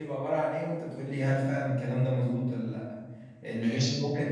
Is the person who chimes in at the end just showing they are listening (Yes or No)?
Yes